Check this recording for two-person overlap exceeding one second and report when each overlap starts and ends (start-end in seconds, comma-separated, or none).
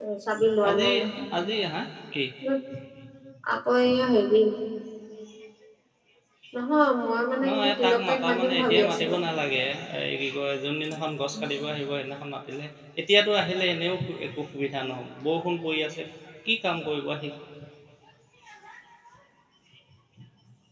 7.5-9.2